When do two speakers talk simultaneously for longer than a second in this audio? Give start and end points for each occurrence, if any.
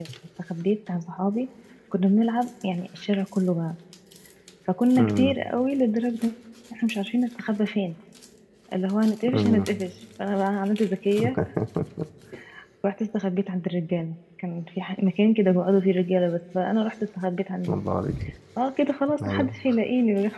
none

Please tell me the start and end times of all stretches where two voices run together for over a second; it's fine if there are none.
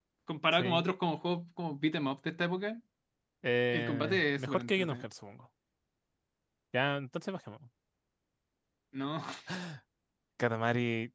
3.7-5.0

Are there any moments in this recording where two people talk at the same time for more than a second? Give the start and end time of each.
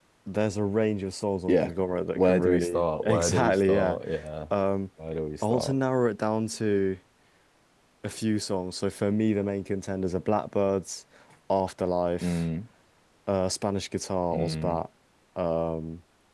2.2-4.0

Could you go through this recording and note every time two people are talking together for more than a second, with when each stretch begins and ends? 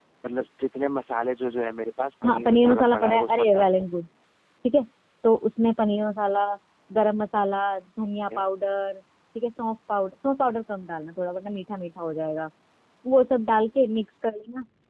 2.2-3.9

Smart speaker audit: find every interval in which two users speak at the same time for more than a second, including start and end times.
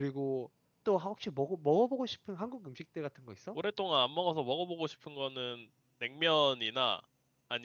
none

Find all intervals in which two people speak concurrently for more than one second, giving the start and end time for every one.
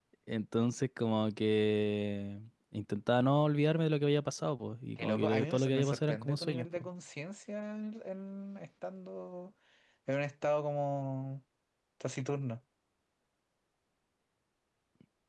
5.0-6.9

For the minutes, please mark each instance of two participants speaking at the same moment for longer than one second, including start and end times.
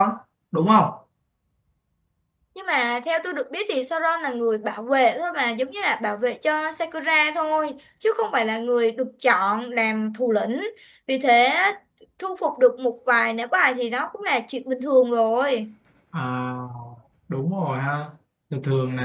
none

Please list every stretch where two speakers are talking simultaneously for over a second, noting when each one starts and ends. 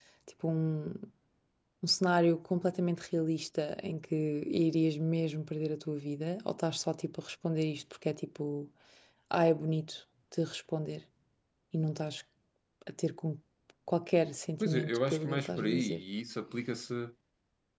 14.6-16.0

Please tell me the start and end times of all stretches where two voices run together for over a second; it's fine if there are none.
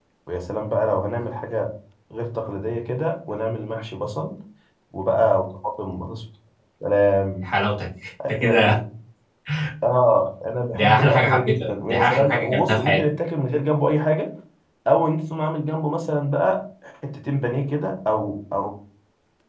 10.7-13.0

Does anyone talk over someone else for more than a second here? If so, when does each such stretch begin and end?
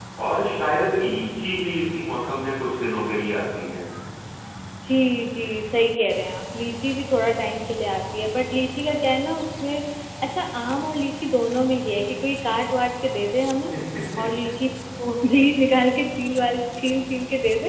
none

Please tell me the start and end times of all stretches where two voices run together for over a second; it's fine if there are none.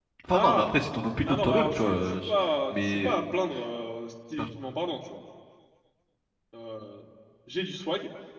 1.3-3.2

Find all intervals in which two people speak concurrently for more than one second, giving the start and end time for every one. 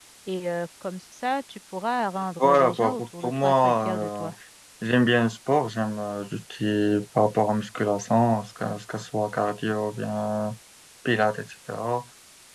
2.4-4.3

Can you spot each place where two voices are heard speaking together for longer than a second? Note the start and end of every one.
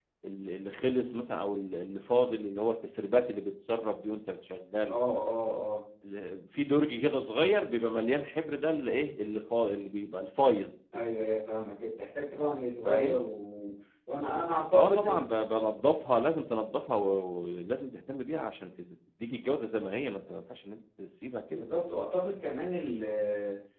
none

